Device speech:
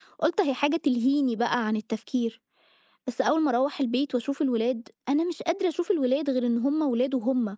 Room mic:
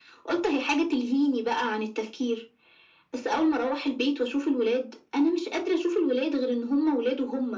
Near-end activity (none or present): none